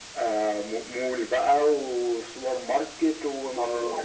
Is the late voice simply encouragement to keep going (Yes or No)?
No